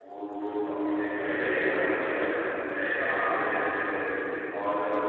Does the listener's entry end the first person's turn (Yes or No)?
Yes